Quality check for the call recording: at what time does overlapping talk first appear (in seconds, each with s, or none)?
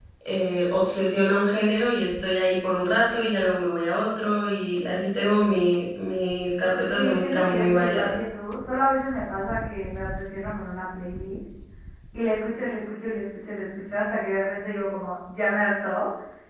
6.9 s